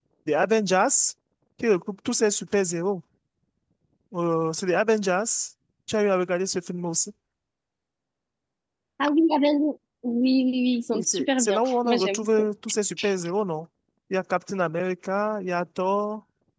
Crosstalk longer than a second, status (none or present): present